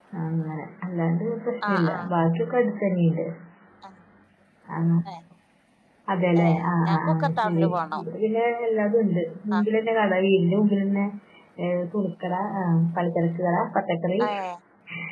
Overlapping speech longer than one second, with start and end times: 6.4-8.0

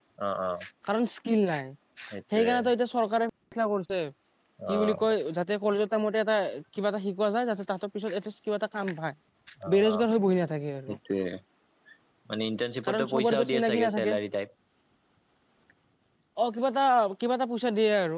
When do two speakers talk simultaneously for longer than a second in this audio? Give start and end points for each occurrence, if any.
12.8-14.1

